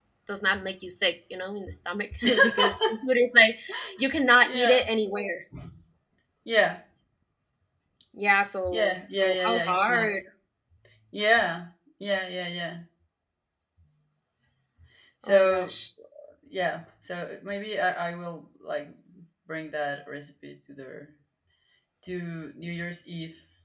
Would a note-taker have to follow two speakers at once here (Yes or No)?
Yes